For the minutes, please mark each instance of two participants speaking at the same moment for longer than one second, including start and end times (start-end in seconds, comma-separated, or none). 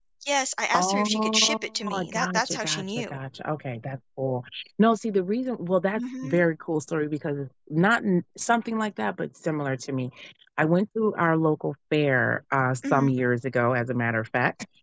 0.8-3.2